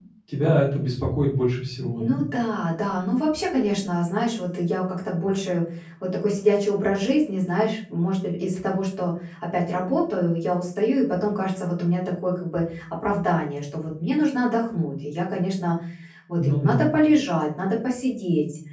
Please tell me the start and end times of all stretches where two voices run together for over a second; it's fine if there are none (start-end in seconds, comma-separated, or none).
none